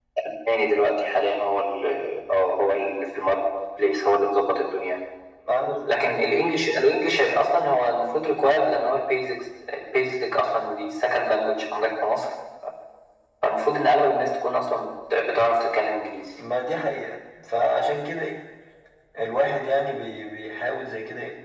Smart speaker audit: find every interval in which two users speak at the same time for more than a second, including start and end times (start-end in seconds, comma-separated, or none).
none